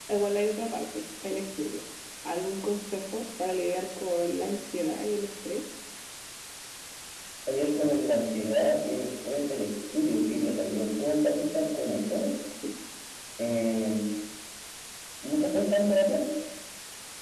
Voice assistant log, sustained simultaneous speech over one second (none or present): none